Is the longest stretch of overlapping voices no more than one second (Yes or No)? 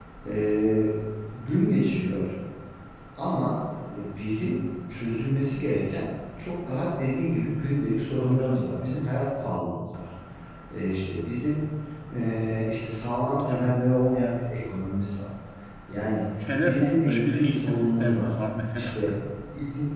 No